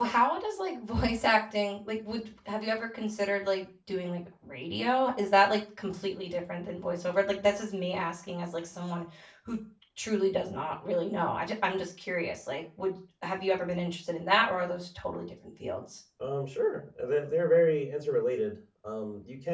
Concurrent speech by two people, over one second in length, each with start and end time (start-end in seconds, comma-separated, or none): none